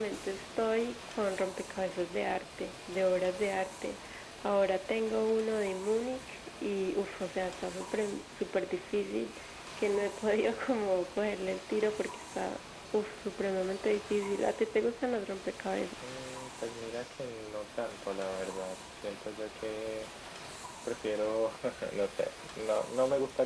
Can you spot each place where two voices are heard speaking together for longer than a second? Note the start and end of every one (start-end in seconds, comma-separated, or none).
none